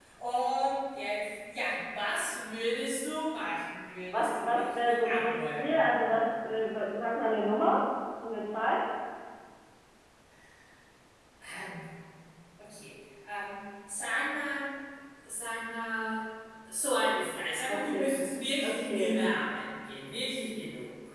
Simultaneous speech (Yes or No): Yes